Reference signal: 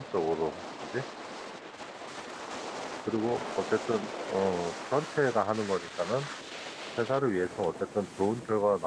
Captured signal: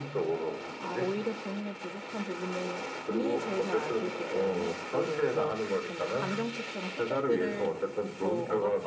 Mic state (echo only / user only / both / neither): both